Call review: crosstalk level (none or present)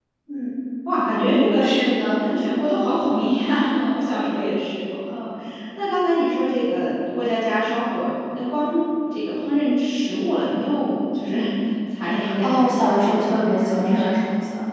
present